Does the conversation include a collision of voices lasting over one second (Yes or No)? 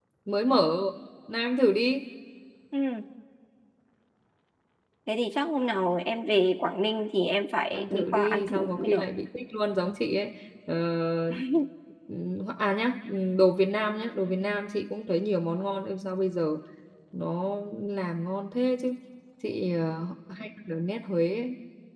Yes